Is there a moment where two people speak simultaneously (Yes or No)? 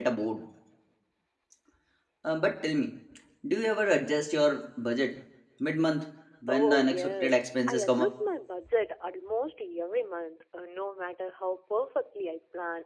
Yes